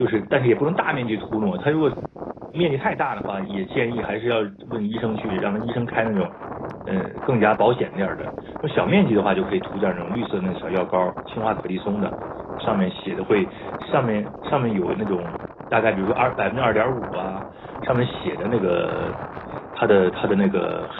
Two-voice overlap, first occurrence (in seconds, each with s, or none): none